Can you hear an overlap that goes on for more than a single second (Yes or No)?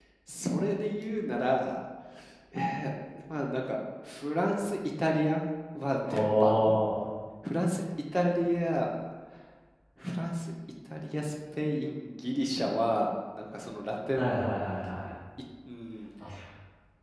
No